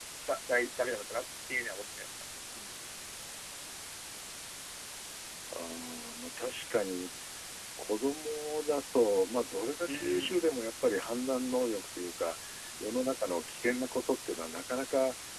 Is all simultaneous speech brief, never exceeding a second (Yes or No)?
Yes